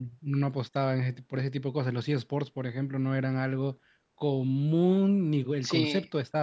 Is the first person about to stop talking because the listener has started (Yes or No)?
Yes